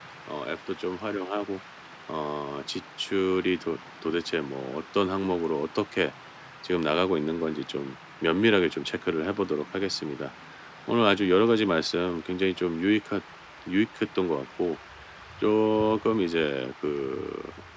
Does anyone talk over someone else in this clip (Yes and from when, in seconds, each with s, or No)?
No